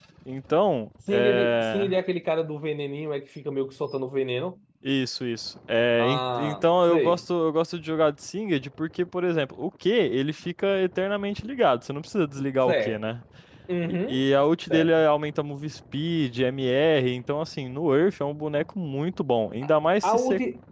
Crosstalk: present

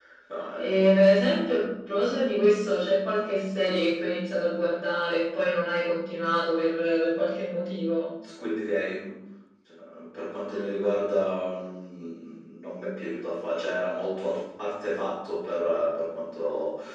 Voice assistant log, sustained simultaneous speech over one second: none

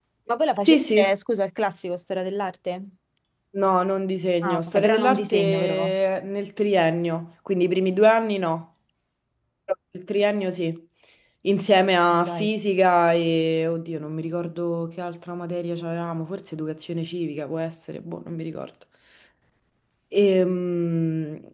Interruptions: present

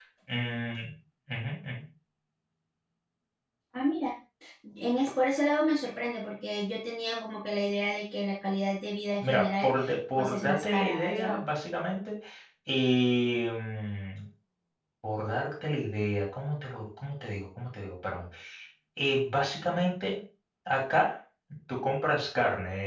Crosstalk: present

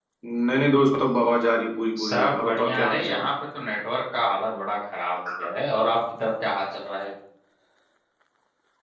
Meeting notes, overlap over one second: present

